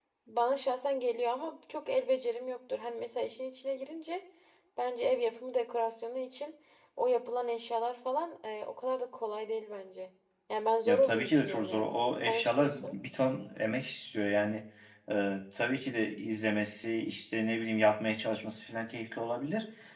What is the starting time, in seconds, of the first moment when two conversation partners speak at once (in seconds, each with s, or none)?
10.8 s